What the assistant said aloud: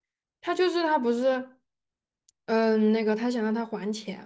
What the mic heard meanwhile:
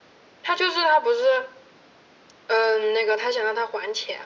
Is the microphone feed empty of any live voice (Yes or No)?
Yes